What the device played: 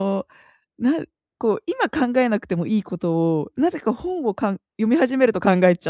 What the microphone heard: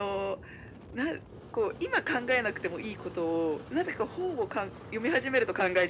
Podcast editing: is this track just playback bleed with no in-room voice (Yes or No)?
Yes